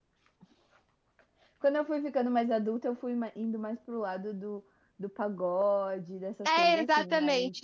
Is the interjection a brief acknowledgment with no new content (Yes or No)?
No